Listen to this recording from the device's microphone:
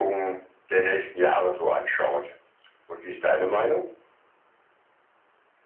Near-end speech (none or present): none